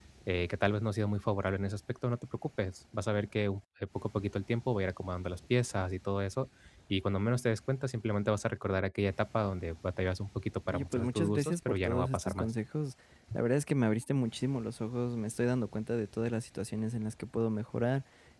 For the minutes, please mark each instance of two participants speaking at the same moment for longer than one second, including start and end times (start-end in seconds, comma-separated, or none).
10.7-12.5